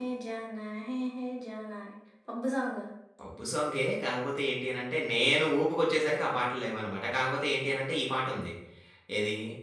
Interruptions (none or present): none